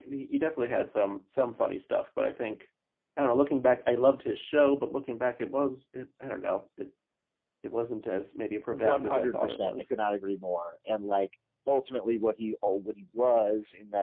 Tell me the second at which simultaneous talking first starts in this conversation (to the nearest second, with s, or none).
9 s